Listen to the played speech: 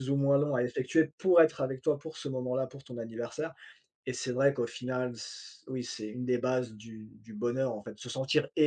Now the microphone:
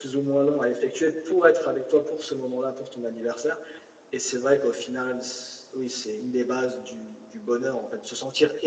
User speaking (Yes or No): No